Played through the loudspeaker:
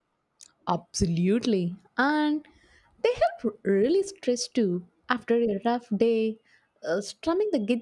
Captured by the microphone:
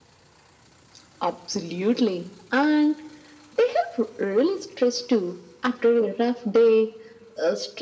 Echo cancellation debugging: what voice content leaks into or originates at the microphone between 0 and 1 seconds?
neither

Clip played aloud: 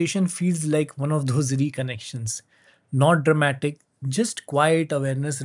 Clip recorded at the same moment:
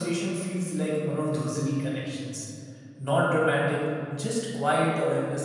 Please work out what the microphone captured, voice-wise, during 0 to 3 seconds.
echo only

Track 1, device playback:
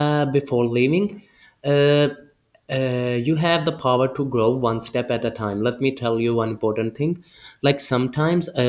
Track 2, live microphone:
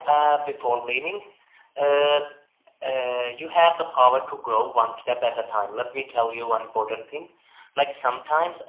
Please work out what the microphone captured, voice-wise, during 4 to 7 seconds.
echo only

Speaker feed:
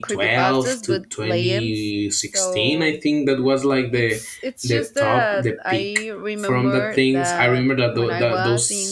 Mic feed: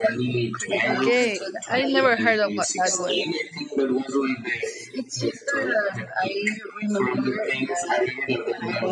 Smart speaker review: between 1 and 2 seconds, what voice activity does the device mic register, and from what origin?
both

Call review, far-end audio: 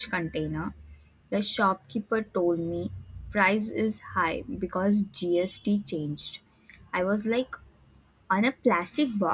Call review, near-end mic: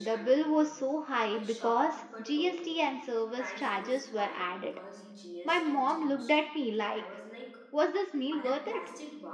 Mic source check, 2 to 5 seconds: both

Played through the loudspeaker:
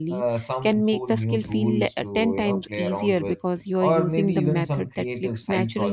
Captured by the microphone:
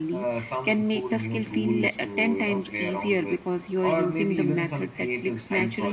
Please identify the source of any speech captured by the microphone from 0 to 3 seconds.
echo only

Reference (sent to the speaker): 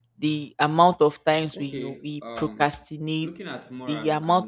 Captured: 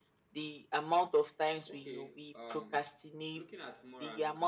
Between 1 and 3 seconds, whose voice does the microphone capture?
echo only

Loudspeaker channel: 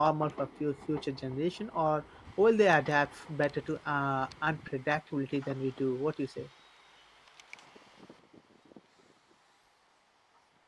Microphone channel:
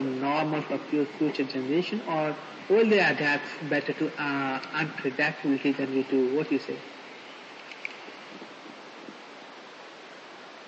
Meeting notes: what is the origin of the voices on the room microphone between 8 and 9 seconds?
neither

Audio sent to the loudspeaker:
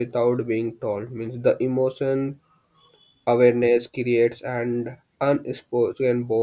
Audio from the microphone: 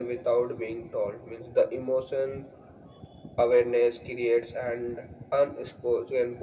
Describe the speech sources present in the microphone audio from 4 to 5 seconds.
echo only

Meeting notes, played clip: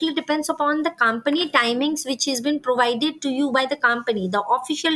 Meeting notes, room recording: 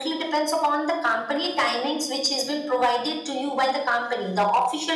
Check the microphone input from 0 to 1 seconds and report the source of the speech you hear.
echo only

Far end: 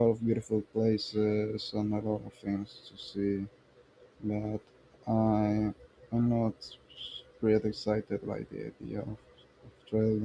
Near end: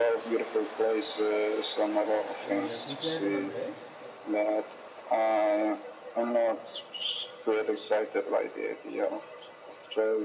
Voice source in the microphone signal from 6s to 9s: echo only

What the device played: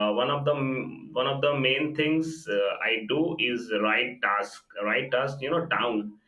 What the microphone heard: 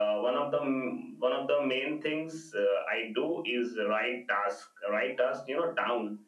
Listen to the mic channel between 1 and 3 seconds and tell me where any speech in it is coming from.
echo only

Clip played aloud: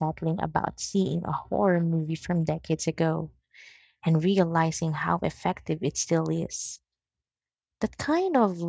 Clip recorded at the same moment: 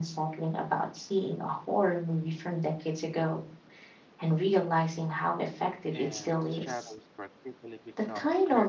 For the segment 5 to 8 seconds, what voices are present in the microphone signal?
both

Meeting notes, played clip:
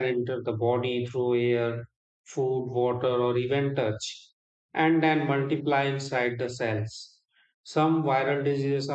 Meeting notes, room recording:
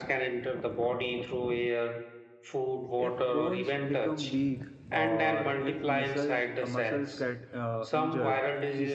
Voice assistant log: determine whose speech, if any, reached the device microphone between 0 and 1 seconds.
echo only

